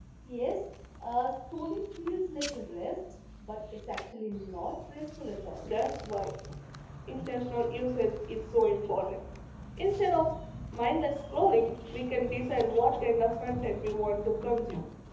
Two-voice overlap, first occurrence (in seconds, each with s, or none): none